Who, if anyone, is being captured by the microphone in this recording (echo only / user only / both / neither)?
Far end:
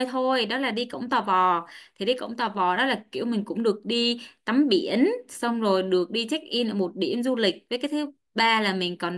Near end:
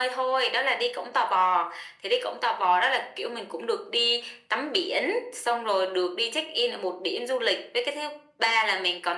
echo only